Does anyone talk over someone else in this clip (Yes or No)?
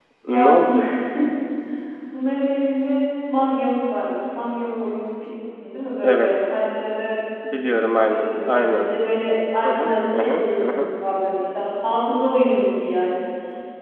Yes